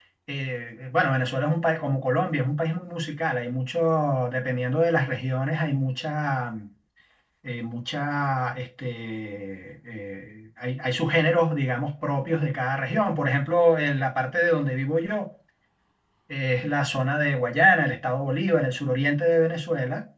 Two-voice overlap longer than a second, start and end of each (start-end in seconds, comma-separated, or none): none